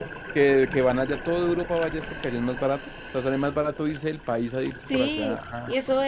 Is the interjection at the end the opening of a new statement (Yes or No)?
Yes